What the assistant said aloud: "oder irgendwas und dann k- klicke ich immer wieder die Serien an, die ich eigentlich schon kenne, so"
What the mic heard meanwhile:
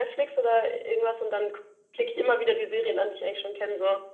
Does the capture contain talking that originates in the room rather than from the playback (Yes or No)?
No